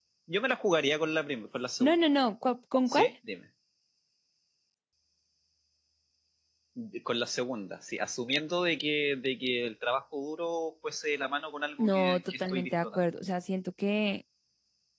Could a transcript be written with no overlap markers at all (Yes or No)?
No